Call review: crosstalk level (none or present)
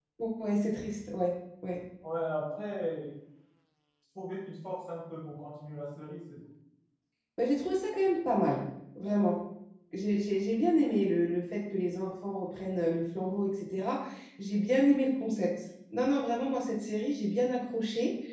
none